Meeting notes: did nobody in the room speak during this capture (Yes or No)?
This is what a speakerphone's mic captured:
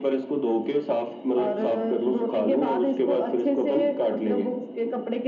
Yes